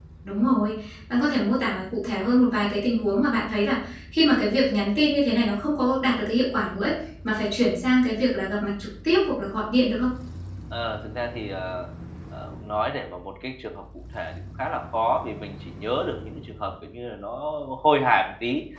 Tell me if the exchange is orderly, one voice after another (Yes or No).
Yes